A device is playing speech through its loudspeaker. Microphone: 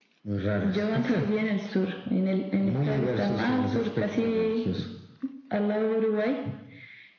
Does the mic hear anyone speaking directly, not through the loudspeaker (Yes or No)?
No